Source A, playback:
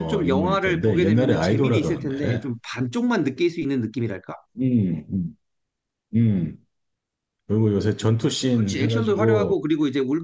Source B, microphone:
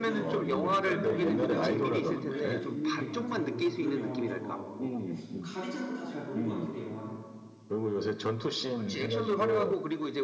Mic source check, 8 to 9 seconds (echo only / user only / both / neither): echo only